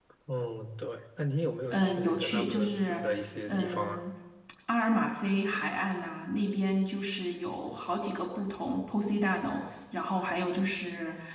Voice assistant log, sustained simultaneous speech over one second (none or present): present